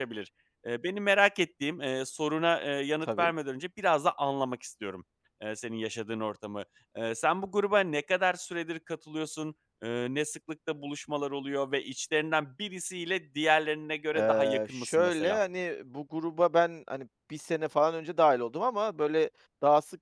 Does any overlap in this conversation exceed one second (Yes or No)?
Yes